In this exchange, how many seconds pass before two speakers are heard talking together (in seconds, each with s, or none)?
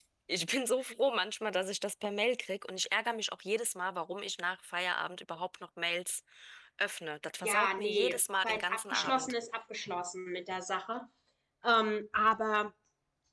7.4 s